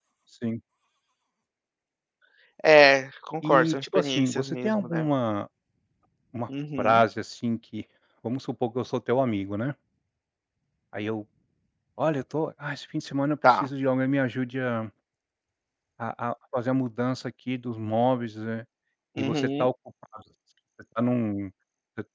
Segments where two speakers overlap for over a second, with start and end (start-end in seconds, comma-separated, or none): 3.4-5.0